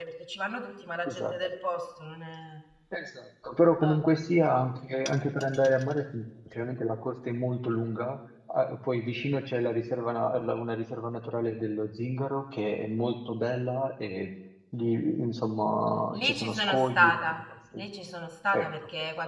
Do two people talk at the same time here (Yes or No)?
Yes